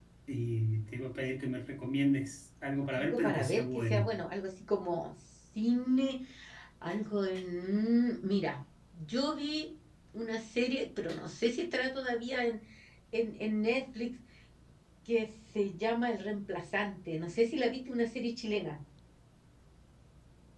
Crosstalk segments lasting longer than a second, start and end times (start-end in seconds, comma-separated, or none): 2.9-4.1